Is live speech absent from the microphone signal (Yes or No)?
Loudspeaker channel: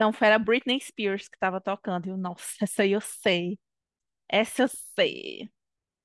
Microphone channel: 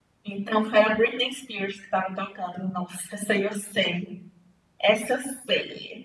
Yes